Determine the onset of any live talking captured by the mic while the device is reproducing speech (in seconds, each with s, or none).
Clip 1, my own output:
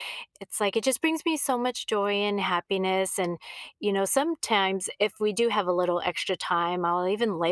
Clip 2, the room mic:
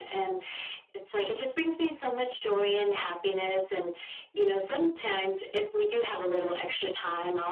none